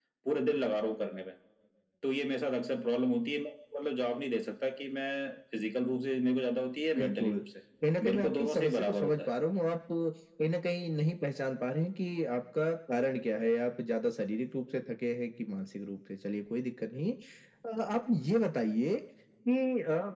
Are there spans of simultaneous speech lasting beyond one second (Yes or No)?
Yes